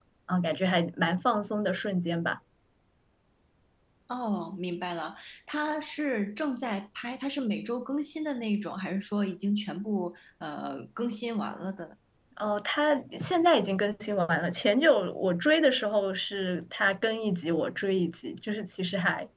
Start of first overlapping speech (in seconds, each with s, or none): none